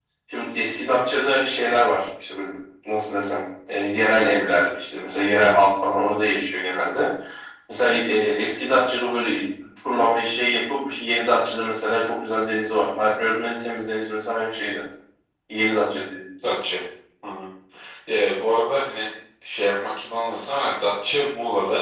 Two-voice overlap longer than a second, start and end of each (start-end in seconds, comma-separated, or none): none